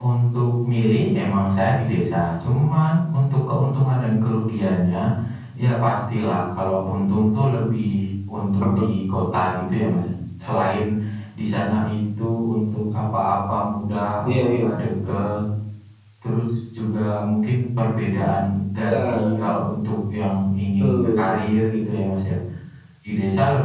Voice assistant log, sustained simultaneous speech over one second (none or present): none